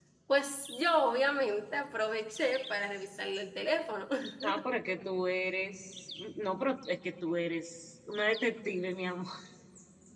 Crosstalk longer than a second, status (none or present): none